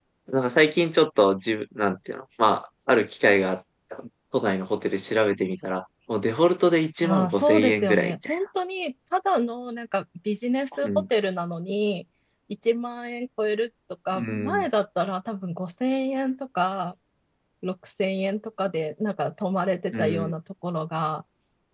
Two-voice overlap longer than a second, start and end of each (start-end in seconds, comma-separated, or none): 7.0-8.4